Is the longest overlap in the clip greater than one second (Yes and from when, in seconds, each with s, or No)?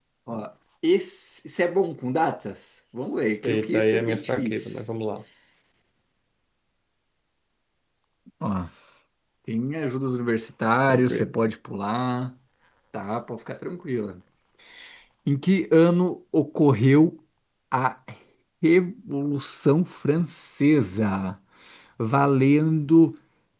Yes, from 3.4 s